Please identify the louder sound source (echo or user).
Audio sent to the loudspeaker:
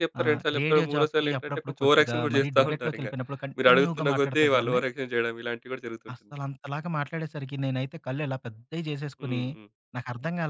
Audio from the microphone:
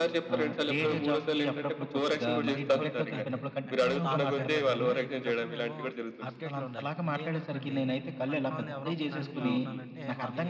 echo